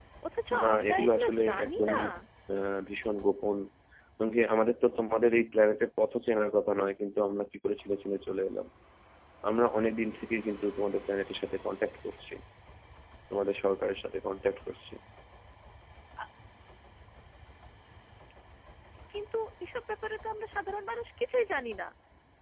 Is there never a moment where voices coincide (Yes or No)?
No